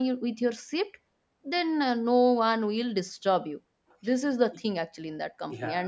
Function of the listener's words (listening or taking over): taking over